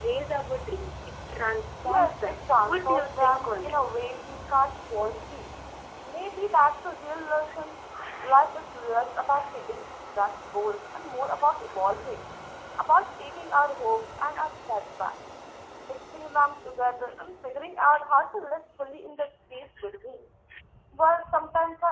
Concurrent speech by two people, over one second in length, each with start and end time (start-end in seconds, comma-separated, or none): 1.8-3.8